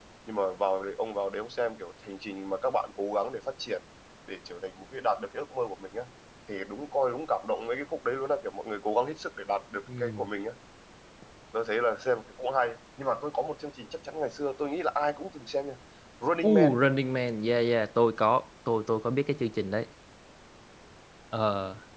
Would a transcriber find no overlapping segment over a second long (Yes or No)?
Yes